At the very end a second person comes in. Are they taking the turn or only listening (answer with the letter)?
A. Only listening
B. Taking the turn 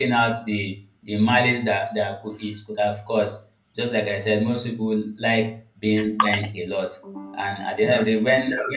A